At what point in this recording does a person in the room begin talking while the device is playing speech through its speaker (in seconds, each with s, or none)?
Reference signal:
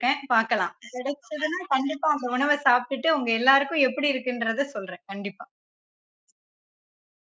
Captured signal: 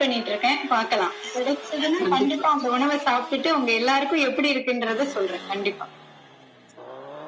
2.0 s